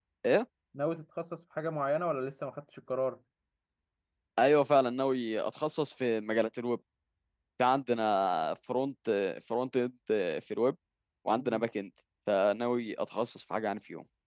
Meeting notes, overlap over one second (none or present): none